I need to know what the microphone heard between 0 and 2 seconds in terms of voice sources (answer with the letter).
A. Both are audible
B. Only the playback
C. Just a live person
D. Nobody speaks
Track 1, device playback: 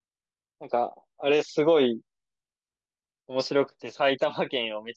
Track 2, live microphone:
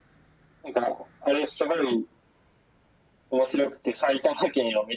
B